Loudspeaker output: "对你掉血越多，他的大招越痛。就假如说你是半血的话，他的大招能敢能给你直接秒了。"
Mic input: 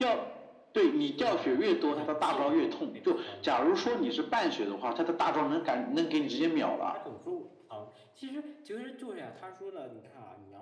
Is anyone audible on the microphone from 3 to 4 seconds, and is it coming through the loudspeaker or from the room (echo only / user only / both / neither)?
both